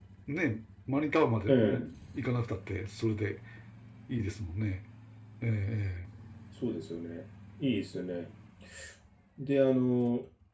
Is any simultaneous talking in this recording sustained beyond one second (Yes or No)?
No